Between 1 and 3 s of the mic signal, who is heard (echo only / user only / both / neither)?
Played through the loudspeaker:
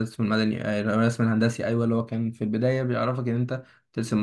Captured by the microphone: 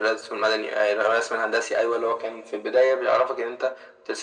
echo only